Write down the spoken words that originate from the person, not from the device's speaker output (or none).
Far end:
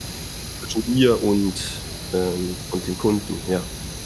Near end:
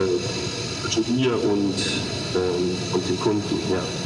none